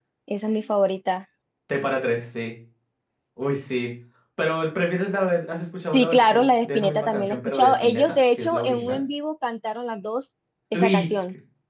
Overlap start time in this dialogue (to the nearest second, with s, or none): 6 s